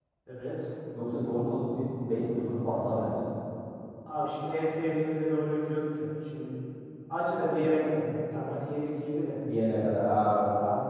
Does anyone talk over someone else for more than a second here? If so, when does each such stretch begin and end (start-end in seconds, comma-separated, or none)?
none